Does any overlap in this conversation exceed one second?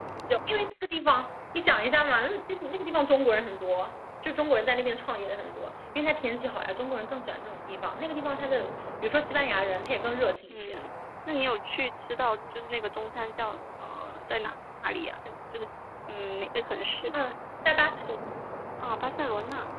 No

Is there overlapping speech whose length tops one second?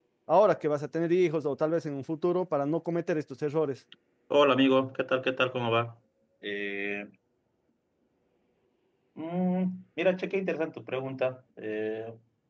No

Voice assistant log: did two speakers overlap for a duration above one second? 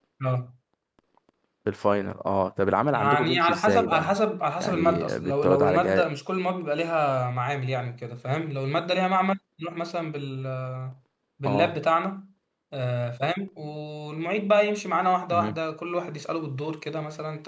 Yes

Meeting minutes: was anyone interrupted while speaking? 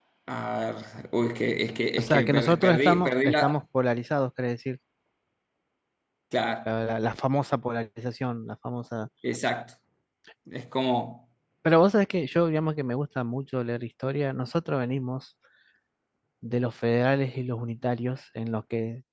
Yes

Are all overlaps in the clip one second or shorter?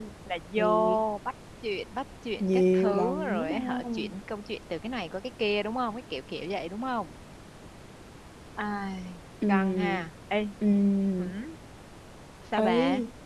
No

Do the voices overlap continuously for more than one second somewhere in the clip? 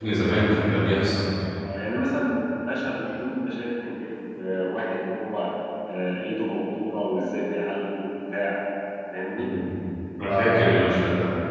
No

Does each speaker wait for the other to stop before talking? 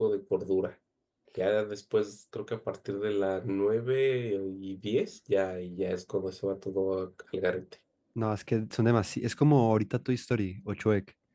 Yes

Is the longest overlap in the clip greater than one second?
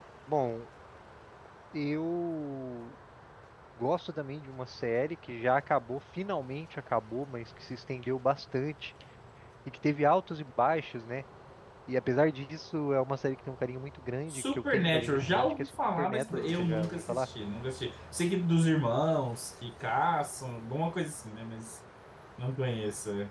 Yes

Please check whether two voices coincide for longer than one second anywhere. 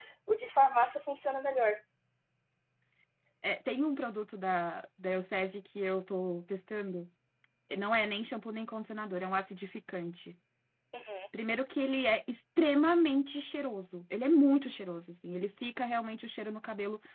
No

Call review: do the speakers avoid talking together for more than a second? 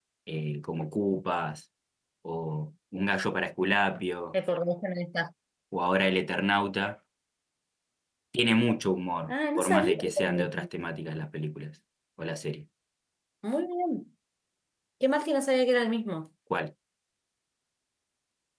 No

